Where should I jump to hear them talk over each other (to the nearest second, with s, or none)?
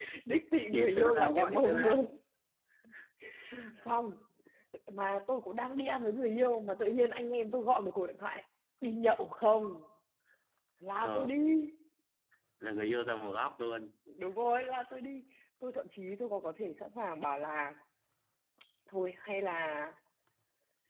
1 s